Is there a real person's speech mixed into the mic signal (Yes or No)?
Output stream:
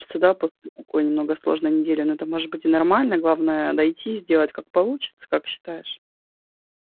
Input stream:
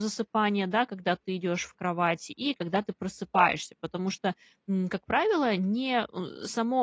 Yes